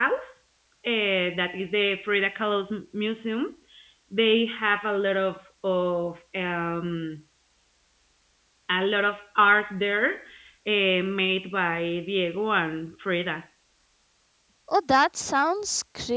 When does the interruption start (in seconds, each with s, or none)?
none